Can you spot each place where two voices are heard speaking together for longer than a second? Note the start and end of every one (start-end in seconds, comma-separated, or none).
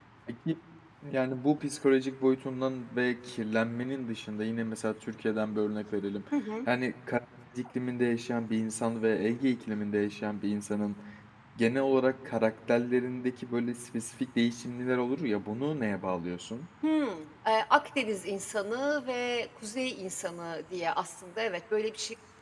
none